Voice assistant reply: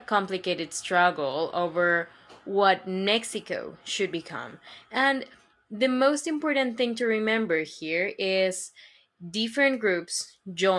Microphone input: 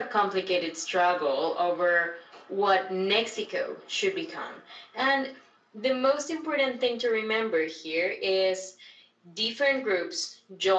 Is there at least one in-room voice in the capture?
No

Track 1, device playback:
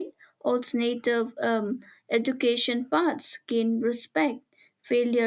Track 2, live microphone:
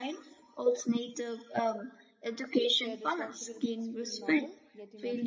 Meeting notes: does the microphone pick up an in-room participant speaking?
Yes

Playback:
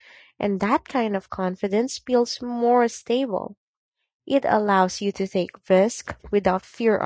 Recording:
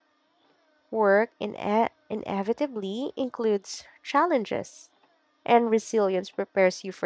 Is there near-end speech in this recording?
Yes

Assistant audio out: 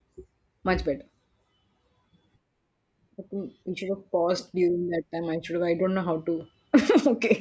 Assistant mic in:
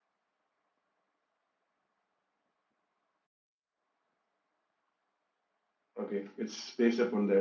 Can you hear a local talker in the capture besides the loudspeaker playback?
Yes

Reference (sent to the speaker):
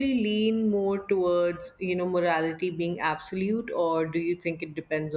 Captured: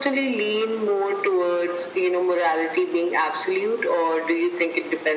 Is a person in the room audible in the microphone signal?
No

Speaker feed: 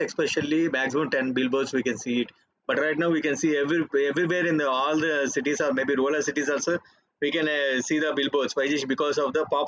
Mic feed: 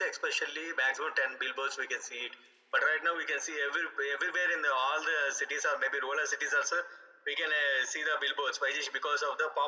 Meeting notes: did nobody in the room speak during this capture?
Yes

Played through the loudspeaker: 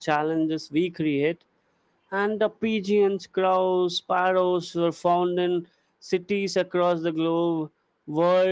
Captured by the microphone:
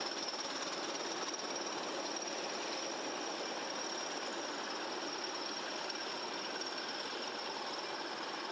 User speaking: No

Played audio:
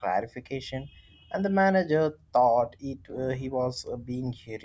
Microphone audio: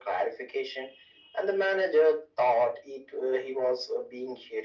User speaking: No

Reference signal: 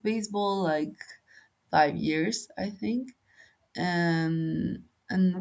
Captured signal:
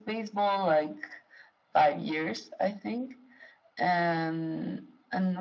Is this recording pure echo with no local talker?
Yes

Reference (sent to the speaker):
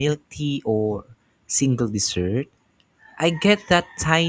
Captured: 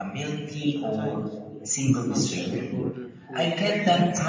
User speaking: Yes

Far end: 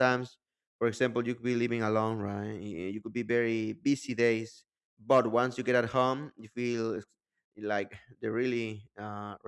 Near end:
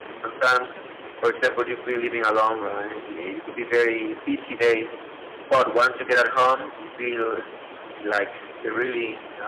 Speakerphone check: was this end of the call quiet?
Yes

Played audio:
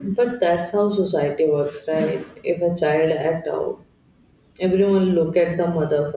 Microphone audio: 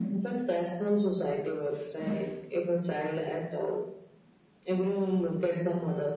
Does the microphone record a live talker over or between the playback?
No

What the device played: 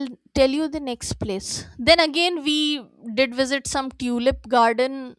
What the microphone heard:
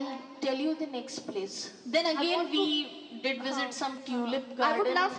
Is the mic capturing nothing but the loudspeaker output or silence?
No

